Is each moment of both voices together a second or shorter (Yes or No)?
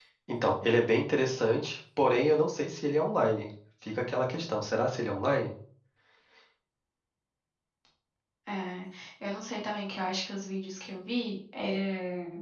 Yes